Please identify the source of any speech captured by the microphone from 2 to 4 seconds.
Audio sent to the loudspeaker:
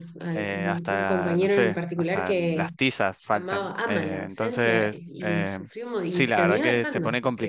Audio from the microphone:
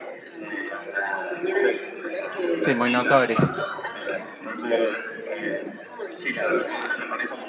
both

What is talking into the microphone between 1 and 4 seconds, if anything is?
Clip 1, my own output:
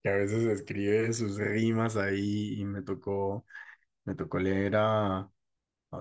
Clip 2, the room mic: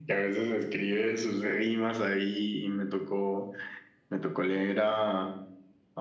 echo only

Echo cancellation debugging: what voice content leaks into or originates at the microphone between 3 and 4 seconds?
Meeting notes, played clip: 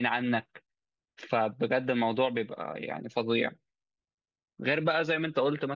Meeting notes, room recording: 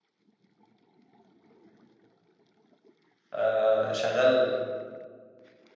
user only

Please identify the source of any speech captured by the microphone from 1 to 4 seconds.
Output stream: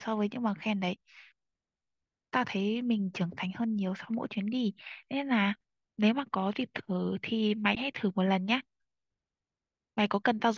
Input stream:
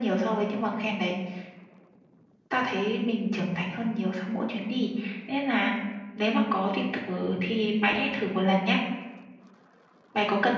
echo only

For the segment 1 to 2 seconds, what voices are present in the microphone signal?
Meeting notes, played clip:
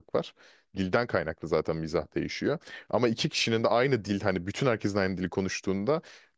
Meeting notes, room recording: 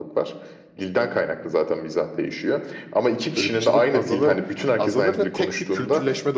echo only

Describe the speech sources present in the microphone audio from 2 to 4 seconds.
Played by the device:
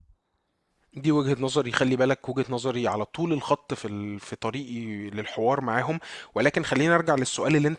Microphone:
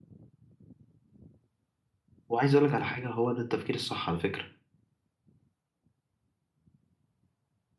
user only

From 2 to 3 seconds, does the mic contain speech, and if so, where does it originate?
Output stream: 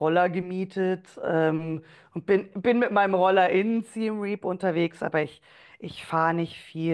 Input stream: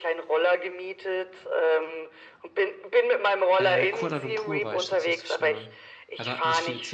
echo only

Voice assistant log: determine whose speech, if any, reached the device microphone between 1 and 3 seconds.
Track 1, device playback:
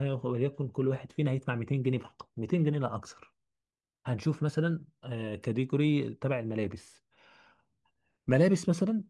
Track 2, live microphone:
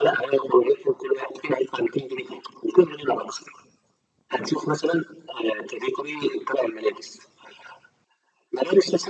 echo only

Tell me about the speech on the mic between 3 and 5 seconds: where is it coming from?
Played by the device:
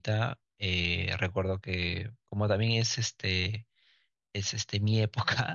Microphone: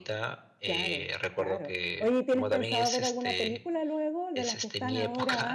both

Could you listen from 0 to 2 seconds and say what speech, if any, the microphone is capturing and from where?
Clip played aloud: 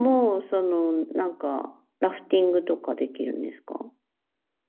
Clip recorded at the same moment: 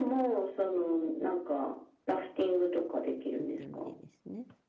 echo only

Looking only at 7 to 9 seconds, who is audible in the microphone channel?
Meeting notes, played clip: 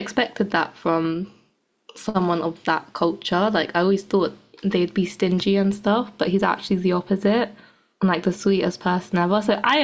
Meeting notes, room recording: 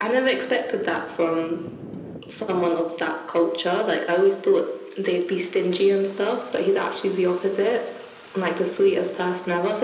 echo only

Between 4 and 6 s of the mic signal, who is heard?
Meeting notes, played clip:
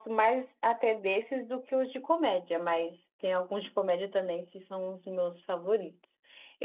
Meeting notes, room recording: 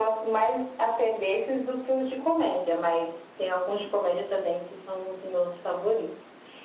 echo only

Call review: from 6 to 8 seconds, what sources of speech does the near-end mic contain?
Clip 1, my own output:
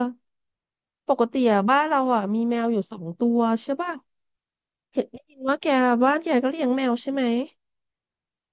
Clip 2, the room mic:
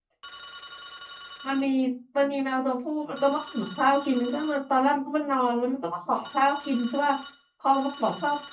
user only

